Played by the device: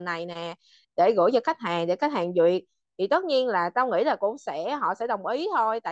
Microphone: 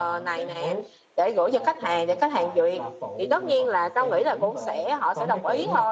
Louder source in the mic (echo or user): echo